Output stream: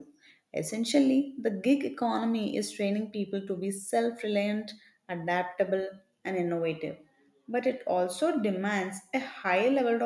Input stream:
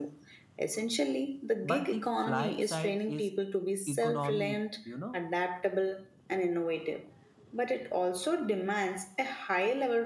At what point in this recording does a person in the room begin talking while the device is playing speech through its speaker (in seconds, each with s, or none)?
1.6 s